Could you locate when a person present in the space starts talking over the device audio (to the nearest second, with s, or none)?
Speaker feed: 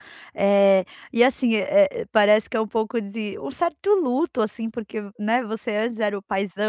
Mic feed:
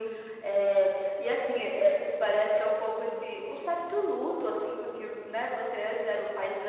none